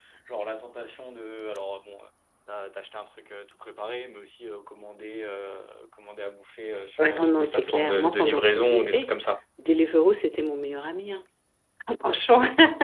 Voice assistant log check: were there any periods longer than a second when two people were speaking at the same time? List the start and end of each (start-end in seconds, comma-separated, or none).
7.0-9.1